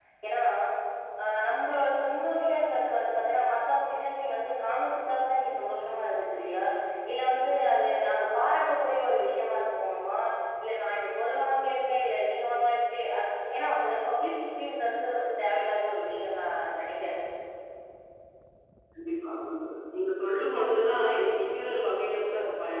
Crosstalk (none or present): none